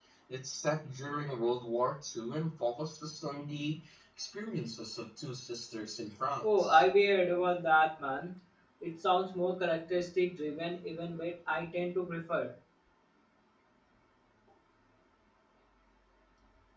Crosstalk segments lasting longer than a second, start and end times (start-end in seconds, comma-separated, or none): none